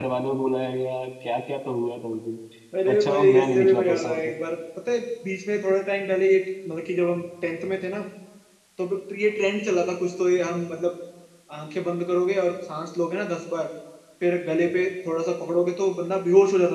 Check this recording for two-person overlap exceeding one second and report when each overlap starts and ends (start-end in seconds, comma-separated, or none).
2.9-4.2